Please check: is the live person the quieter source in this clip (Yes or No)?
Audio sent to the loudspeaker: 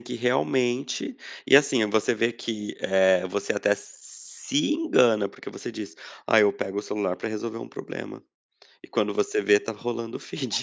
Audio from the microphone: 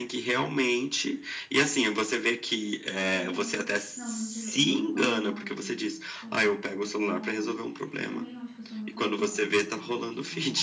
Yes